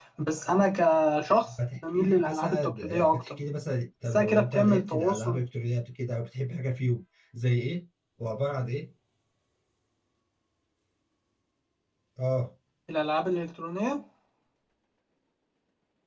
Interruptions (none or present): present